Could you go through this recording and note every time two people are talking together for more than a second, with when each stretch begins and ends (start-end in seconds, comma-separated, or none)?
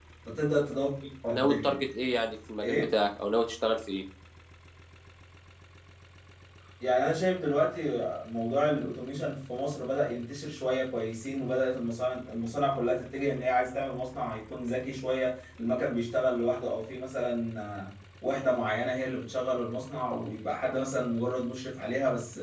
none